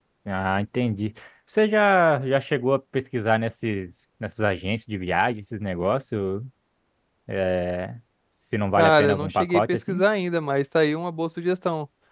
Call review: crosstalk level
present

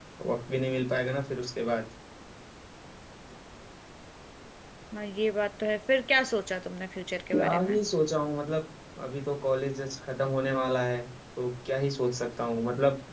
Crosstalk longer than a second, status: none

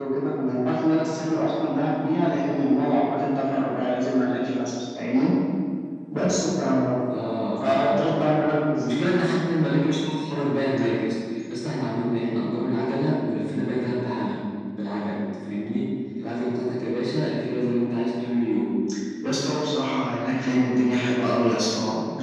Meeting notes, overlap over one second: none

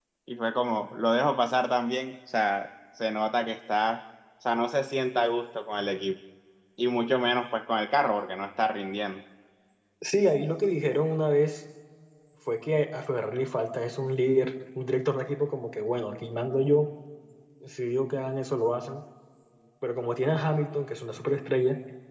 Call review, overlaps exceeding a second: none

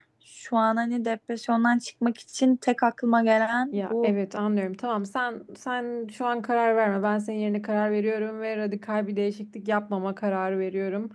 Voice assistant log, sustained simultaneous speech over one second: none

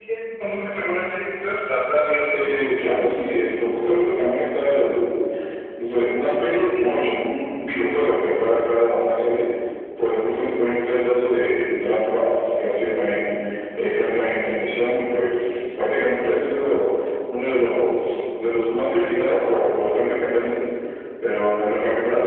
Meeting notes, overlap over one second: none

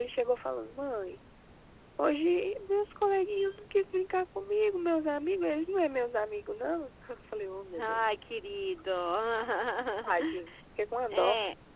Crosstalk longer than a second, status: none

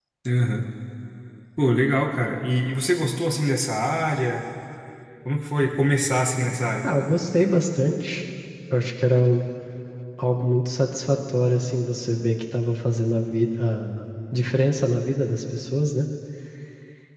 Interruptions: none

